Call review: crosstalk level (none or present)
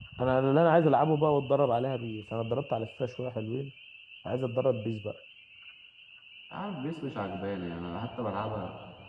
none